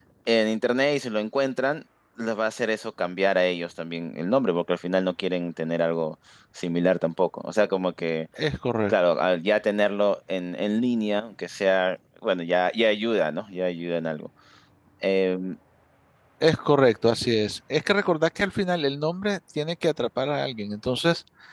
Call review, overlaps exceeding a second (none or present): none